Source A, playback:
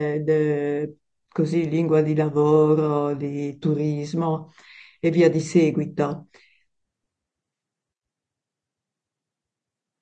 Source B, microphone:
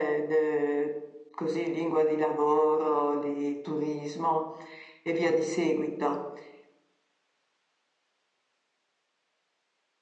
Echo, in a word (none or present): present